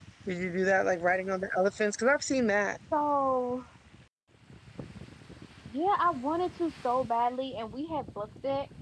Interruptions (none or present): none